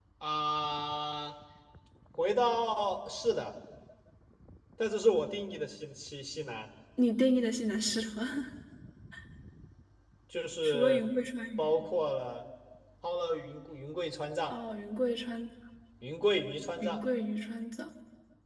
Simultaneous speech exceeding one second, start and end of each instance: none

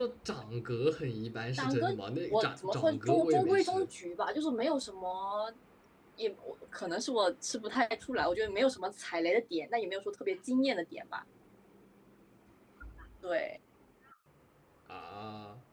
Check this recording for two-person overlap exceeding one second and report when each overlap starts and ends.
2.3-3.9

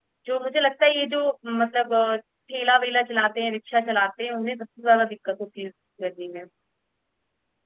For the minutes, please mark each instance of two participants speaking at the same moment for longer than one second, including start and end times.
none

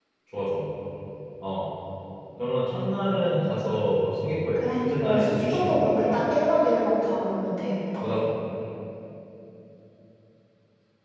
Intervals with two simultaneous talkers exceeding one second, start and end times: 4.6-6.2

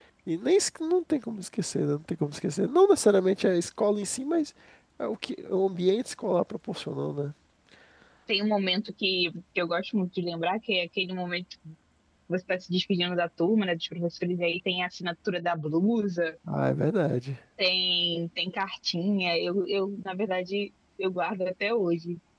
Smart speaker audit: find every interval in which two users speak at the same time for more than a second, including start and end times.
none

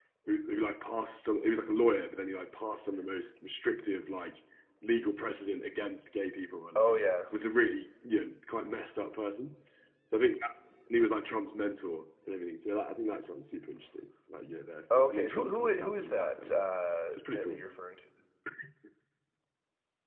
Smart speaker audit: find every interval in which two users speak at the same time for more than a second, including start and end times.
14.9-16.6

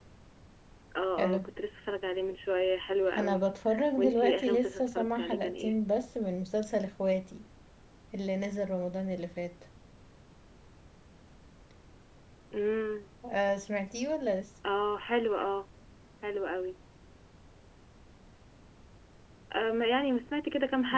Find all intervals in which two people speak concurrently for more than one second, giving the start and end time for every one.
4.0-5.7

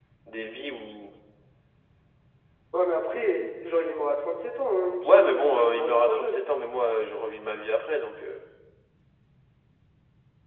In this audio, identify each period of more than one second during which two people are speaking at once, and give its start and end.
5.0-6.4

